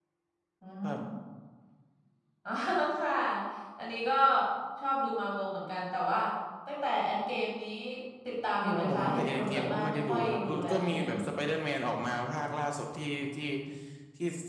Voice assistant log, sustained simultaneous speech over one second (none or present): present